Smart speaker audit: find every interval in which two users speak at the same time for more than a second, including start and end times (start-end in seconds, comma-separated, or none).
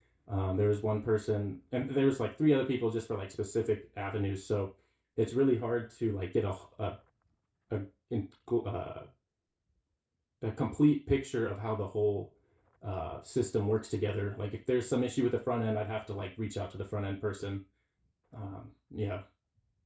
none